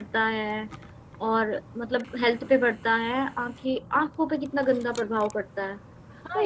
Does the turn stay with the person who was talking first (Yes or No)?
No